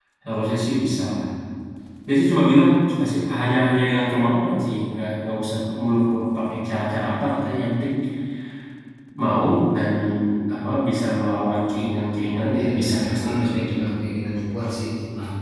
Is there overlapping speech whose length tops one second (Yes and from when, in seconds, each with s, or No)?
Yes, from 12.5 s